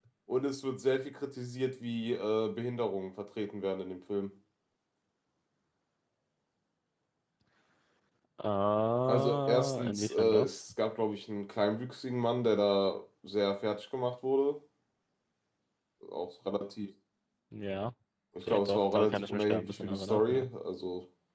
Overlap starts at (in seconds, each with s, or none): 9.1 s